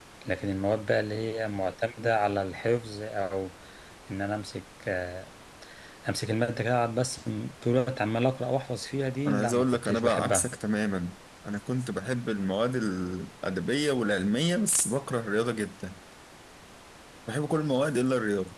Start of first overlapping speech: 9.2 s

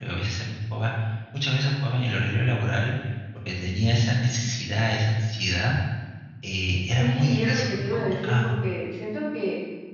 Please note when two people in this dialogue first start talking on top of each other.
7.0 s

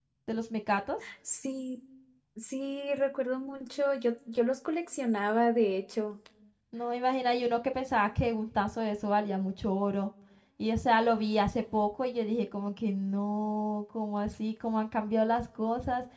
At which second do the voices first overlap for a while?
none

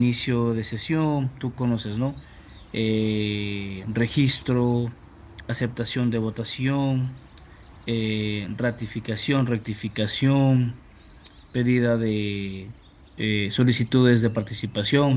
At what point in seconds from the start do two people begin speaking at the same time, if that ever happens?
none

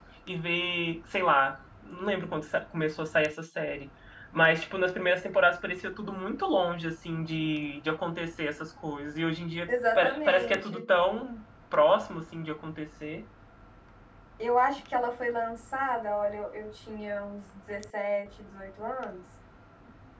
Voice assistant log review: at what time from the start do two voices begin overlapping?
9.7 s

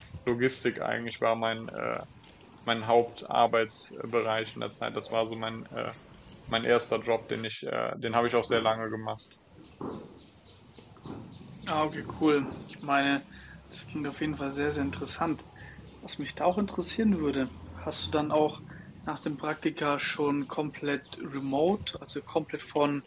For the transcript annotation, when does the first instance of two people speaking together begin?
none

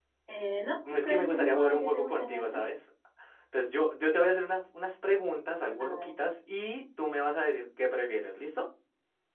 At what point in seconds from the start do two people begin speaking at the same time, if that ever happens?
1.0 s

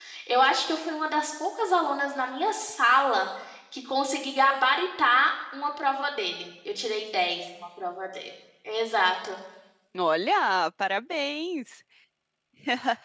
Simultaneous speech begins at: none

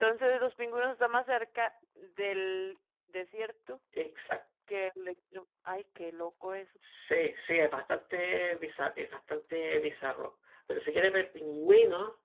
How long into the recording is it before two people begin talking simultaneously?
none

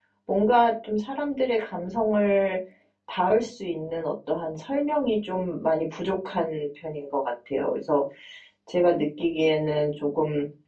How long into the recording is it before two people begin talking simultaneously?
none

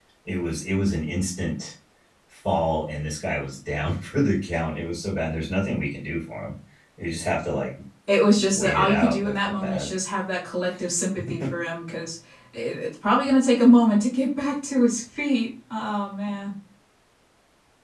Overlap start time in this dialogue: 8.3 s

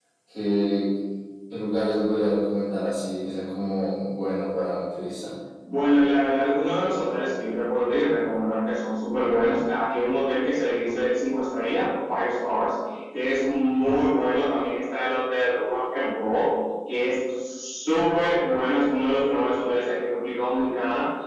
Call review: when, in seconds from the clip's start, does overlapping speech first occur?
none

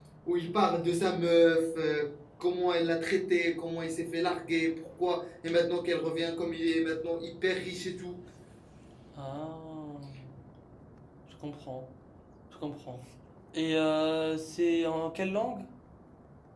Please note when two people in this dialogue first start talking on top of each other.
none

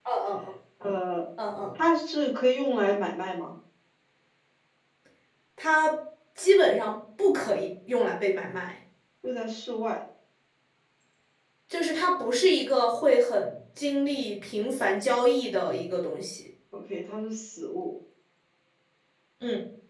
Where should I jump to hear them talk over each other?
none

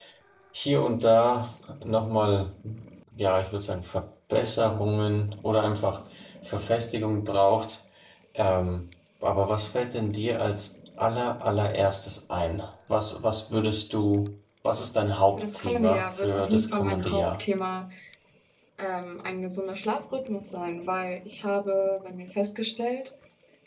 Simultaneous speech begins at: 15.4 s

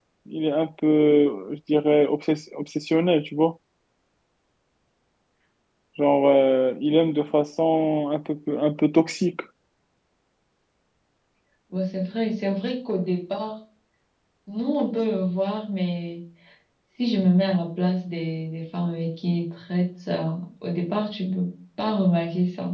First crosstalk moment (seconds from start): none

